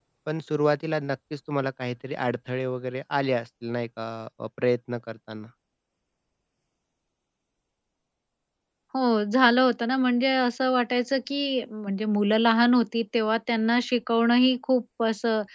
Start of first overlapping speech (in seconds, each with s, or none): none